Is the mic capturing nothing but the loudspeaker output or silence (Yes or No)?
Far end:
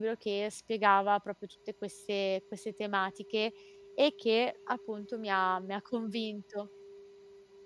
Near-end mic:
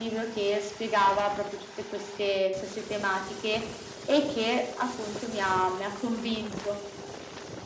Yes